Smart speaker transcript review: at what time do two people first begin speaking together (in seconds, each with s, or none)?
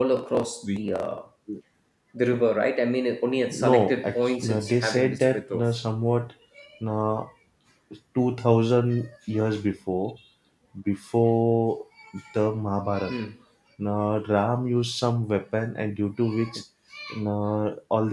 3.5 s